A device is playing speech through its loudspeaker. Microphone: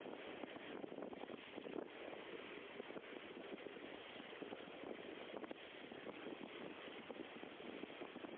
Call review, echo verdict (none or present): none